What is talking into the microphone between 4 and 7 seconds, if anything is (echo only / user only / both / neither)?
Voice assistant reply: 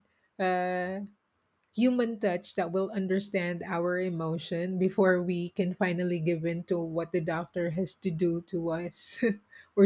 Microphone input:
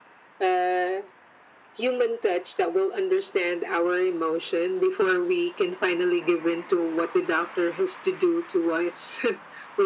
echo only